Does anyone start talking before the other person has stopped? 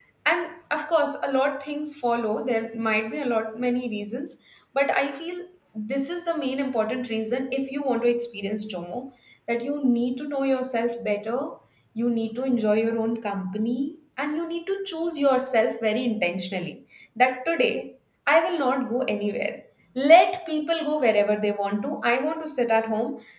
No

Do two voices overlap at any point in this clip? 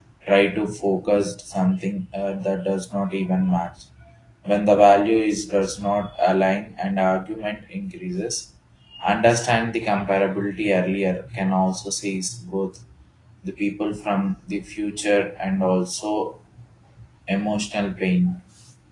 No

